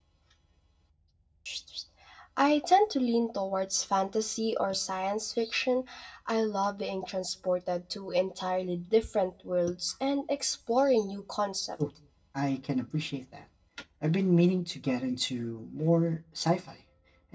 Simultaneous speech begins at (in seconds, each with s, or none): none